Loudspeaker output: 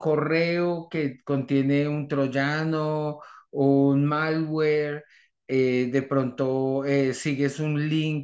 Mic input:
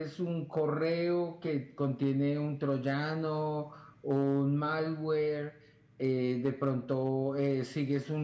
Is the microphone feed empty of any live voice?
Yes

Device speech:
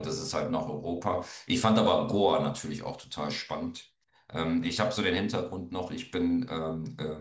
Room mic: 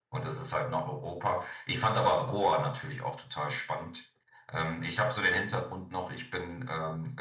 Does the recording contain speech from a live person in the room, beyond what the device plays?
No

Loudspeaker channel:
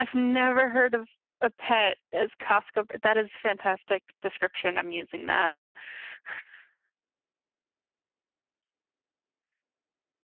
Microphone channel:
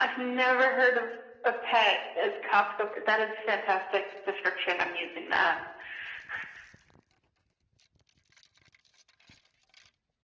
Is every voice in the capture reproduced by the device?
Yes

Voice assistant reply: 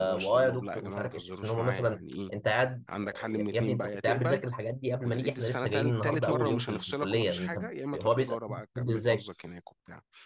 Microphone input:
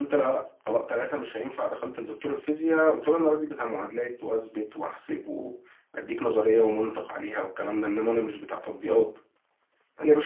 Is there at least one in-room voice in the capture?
Yes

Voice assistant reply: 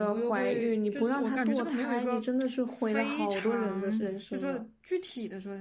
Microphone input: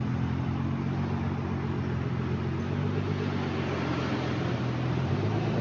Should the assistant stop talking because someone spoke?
No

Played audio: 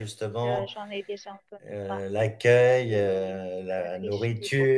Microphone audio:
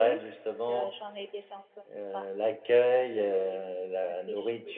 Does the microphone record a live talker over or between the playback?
No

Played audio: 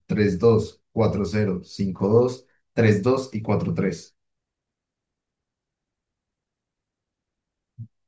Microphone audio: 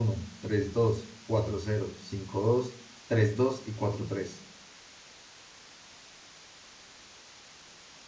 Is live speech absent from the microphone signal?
Yes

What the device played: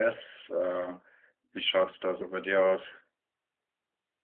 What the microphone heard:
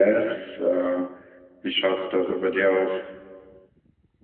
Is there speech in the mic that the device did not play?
No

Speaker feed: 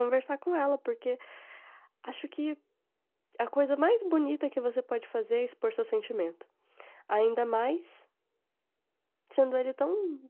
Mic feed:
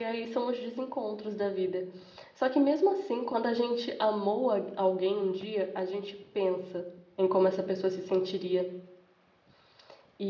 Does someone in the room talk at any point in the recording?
Yes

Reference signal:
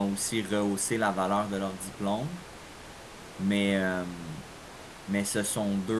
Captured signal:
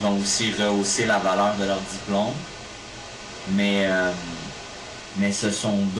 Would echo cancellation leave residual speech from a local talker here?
No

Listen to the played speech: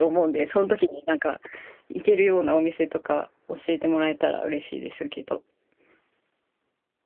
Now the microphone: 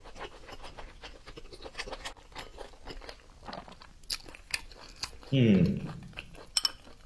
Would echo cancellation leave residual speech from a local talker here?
Yes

